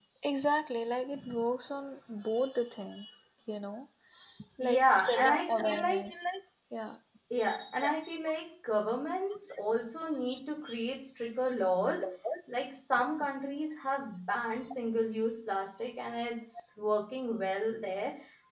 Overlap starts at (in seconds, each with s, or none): 4.6 s